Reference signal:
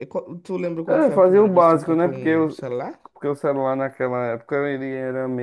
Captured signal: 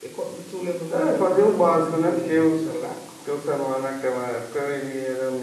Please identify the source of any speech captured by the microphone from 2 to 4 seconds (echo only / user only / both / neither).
echo only